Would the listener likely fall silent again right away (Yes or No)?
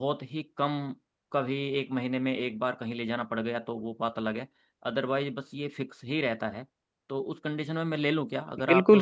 No